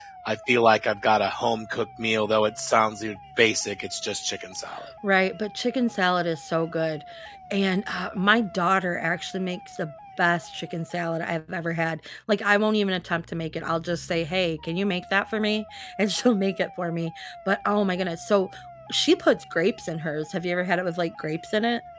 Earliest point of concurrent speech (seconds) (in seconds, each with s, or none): none